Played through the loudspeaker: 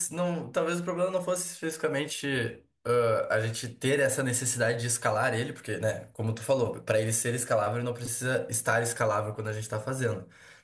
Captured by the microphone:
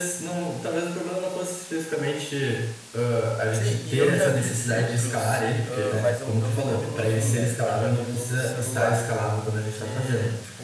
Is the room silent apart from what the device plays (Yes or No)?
No